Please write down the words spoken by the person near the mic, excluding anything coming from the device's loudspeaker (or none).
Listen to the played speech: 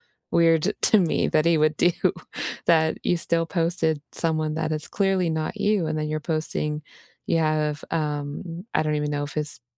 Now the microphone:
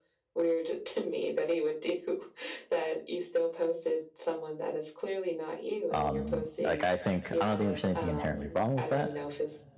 Um, like, I think I don't think there's anything inherently wrong with that,